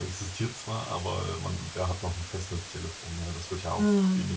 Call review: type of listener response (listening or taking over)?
taking over